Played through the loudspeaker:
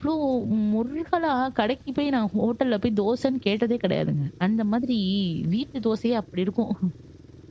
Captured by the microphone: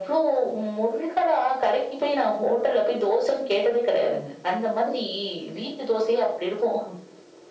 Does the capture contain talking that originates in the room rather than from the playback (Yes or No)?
No